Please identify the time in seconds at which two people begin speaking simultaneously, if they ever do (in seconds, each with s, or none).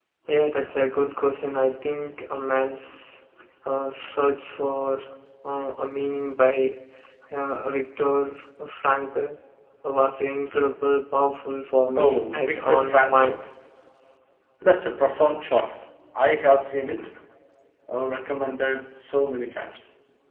11.9 s